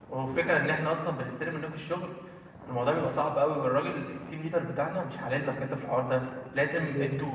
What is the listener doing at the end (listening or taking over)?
listening